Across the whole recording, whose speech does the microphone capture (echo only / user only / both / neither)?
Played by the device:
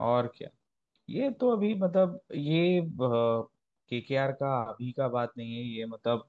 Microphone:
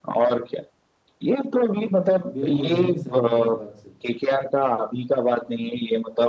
both